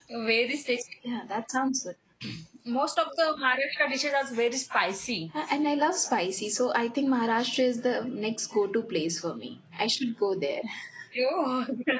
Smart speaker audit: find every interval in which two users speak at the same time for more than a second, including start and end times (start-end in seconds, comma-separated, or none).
none